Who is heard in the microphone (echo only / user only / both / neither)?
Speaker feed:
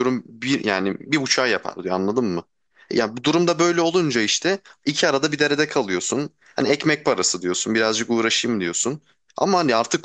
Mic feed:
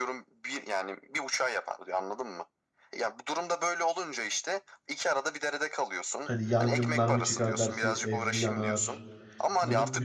both